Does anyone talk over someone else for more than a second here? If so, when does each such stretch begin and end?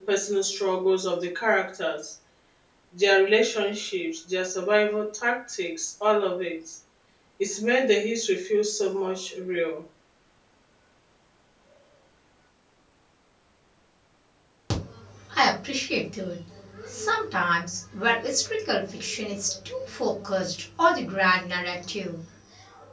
none

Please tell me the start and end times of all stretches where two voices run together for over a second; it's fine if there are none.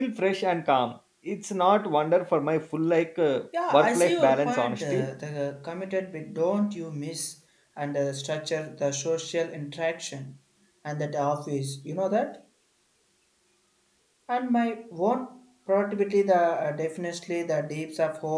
3.7-5.1

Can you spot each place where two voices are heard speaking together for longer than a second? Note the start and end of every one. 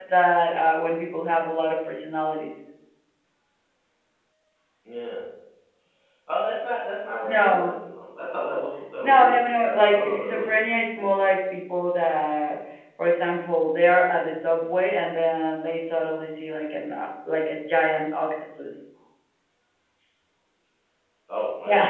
9.9-11.3

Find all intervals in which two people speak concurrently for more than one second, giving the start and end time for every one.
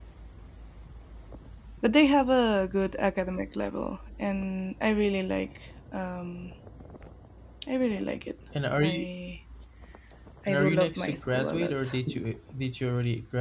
10.5-11.9

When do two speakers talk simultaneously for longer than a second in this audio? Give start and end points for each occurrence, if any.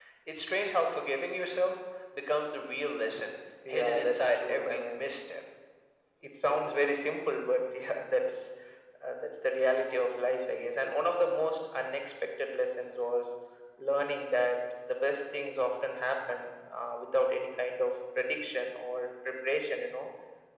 3.7-5.0

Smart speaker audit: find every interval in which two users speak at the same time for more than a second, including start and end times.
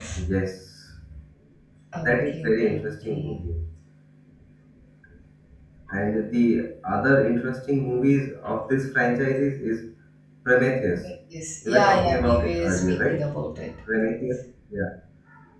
2.0-3.4, 11.7-13.2

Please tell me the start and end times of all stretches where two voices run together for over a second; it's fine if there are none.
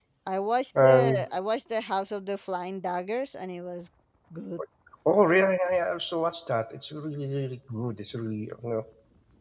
none

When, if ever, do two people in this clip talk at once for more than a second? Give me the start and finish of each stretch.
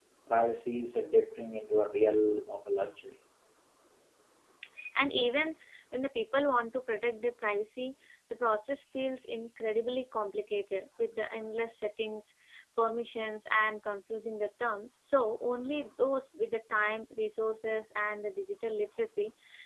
none

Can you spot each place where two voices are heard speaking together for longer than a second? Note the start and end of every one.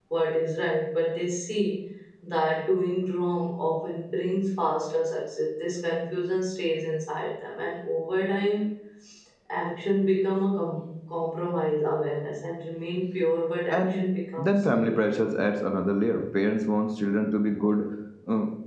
13.7-14.9

